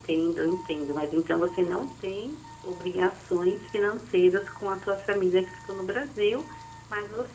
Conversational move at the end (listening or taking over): listening